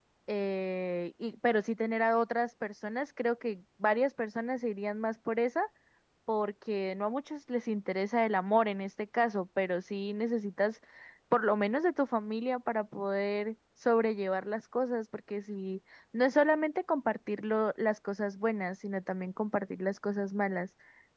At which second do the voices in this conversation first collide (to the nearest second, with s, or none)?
none